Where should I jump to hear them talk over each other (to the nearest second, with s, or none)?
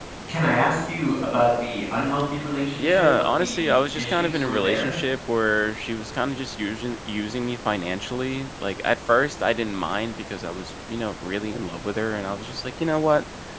3 s